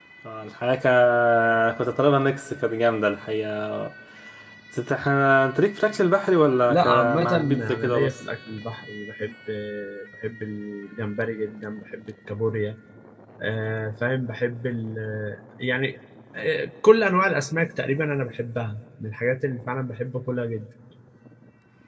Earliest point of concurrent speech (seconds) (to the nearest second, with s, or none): 7 s